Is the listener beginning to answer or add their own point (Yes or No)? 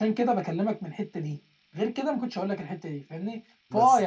No